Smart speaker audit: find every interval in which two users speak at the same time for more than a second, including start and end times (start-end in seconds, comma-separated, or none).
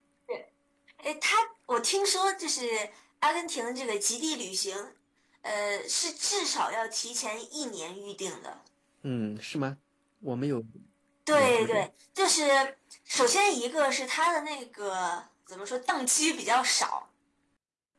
none